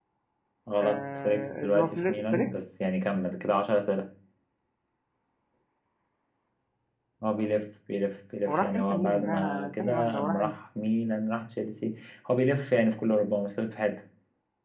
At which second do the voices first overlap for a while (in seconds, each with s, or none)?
0.8 s